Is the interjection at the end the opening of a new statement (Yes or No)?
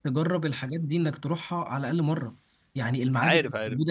No